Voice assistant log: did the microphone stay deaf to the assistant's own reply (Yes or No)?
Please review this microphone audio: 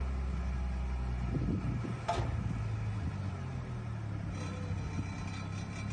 Yes